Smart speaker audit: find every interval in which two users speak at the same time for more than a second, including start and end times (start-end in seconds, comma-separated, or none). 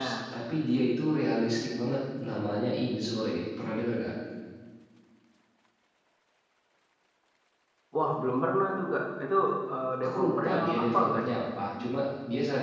10.0-11.2